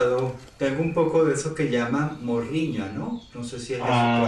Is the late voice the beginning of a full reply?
Yes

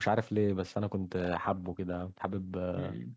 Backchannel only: No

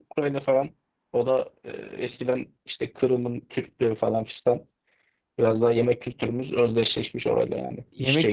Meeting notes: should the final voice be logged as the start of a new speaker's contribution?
Yes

